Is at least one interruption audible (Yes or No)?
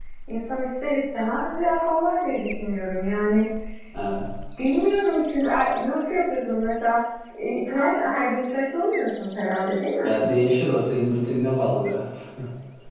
No